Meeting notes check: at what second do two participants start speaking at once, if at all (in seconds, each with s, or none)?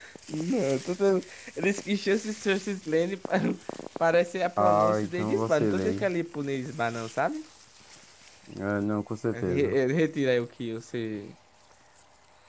4.6 s